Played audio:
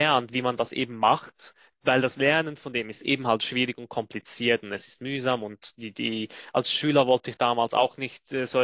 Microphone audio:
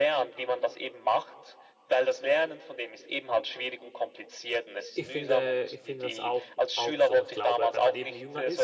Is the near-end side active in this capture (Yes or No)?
Yes